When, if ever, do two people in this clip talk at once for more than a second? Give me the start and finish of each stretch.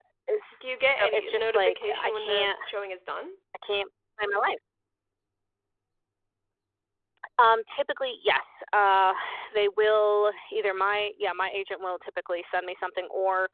0.5-2.5

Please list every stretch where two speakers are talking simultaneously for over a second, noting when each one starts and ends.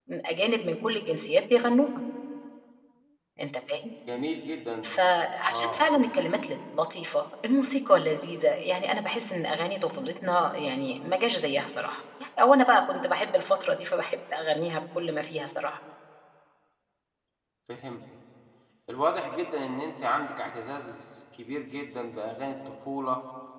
none

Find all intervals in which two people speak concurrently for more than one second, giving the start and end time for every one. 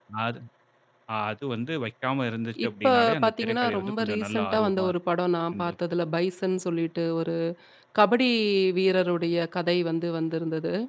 2.7-4.9

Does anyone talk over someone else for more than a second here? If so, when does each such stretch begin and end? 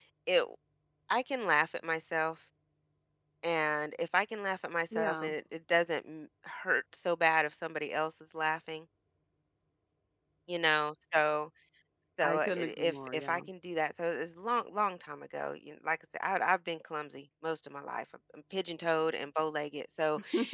12.2-13.4

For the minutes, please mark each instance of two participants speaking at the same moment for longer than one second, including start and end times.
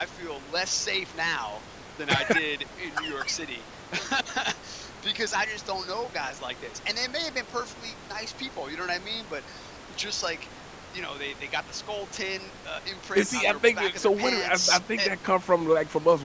13.2-15.1

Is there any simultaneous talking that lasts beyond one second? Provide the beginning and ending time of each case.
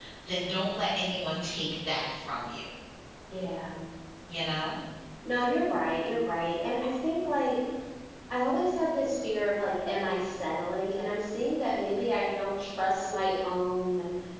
none

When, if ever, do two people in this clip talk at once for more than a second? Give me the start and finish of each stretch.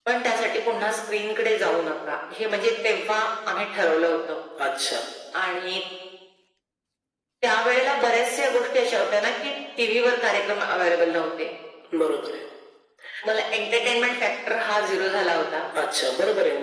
none

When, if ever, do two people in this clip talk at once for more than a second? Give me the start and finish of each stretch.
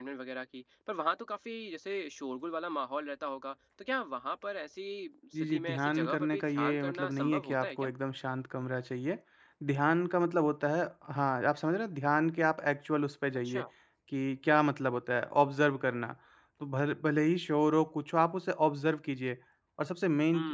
5.4-7.9

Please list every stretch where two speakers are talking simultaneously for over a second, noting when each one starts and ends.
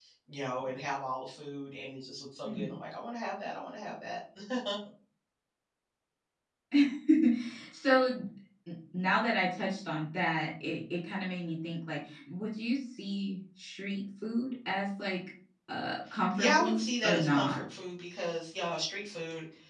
16.3-17.6

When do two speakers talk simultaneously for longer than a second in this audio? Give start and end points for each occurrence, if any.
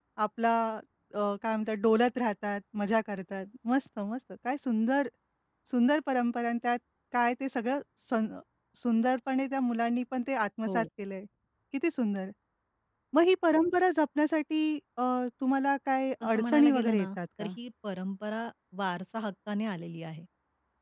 16.2-17.5

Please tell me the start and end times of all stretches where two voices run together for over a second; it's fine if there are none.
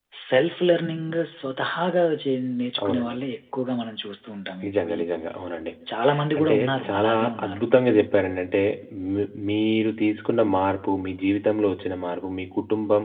6.4-7.6

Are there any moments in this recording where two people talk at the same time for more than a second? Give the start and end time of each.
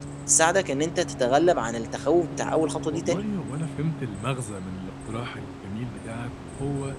none

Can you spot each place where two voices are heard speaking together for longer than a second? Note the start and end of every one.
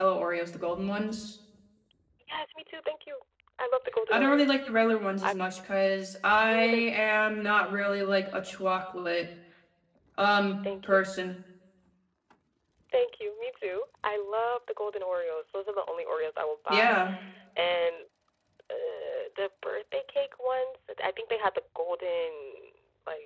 none

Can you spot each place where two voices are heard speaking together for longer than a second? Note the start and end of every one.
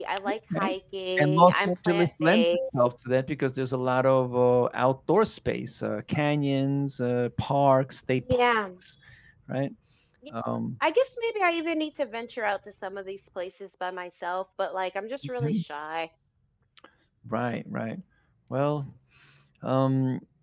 1.2-2.4

